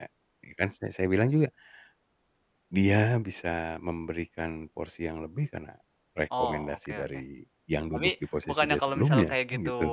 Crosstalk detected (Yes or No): Yes